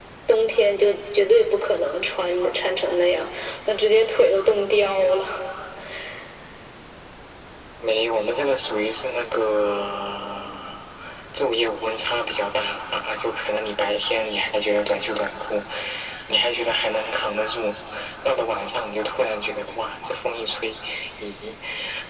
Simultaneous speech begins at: none

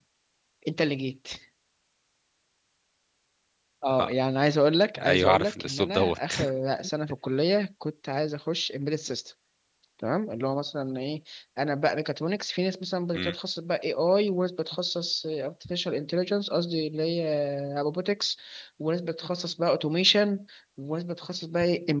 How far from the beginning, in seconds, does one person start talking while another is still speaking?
5.1 s

